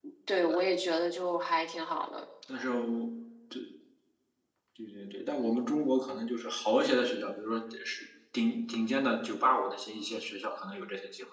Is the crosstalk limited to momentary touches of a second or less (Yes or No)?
Yes